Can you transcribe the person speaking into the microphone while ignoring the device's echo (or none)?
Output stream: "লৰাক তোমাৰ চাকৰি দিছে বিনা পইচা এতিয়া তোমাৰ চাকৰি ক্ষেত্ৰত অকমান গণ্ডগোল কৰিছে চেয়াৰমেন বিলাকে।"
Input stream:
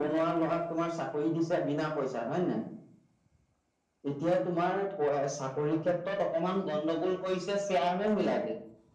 none